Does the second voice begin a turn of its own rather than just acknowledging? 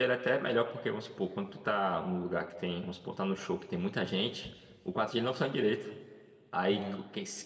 No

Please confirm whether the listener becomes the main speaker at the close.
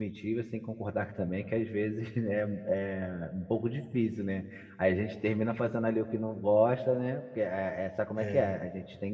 No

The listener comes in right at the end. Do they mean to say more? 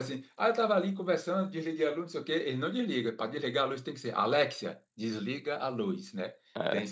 No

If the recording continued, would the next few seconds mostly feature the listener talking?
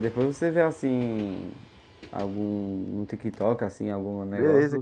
Yes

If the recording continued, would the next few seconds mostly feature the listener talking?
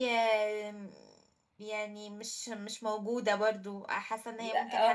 Yes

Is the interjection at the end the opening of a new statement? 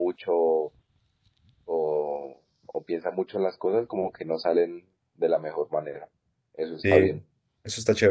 Yes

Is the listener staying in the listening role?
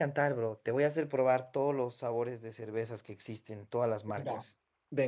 No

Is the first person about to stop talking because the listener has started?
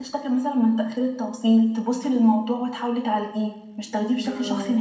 Yes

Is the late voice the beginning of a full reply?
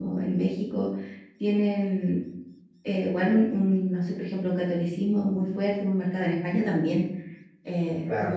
No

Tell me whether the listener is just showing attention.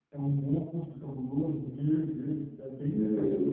Yes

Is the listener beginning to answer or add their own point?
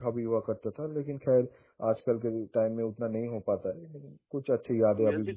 Yes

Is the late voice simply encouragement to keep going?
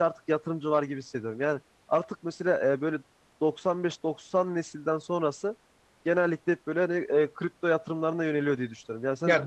No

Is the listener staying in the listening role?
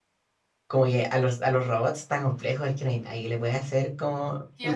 No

